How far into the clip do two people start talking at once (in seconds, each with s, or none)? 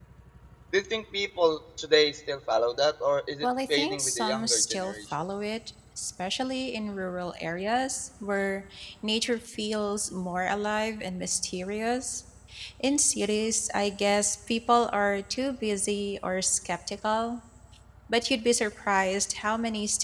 3.4 s